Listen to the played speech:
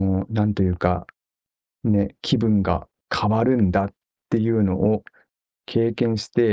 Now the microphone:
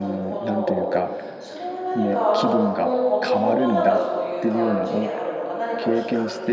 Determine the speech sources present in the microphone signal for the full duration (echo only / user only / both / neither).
both